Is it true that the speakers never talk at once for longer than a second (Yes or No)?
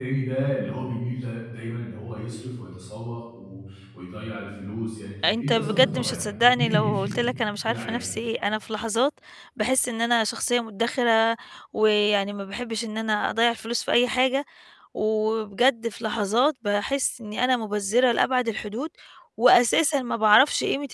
No